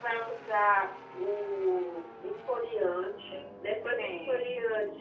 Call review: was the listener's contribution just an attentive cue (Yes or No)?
Yes